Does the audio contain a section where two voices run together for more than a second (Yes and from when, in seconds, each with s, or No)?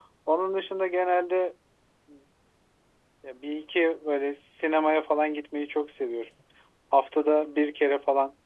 No